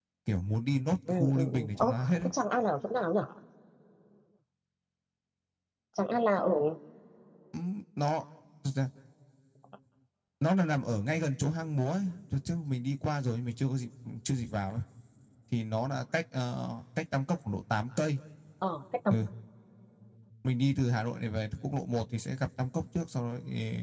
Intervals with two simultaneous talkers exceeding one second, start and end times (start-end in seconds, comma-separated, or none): 1.1-2.3